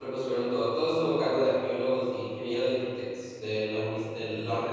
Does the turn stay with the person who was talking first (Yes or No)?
No